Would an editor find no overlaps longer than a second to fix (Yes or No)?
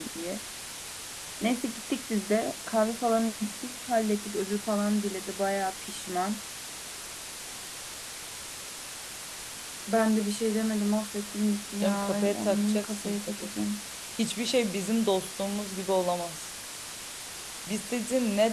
No